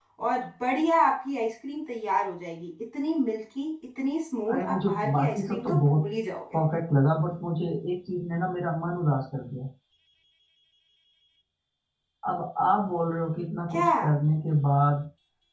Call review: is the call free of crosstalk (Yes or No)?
No